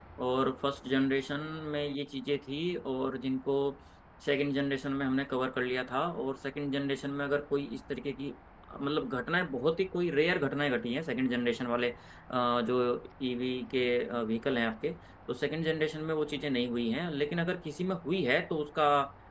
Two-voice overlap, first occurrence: none

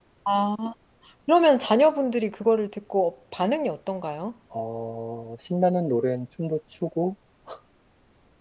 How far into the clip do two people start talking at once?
none

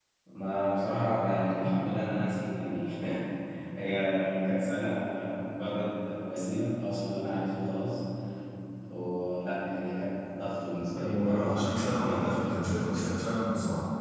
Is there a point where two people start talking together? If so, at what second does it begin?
11.0 s

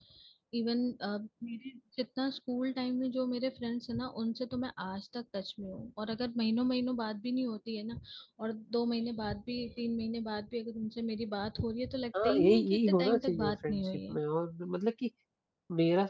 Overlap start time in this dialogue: 12.1 s

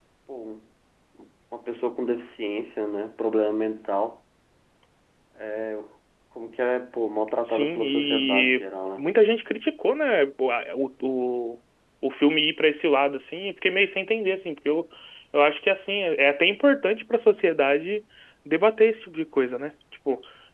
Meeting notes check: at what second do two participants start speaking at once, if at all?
7.5 s

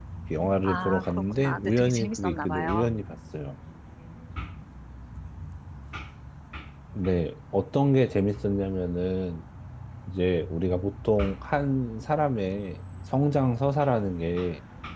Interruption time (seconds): 0.6 s

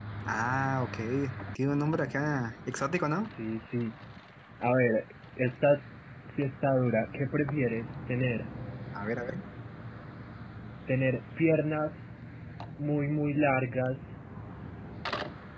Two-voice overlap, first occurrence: none

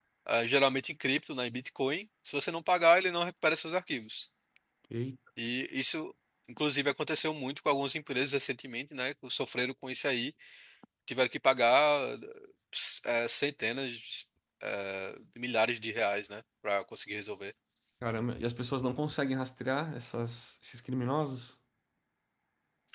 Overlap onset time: none

